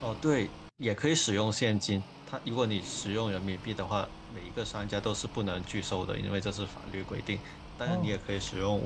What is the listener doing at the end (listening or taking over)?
listening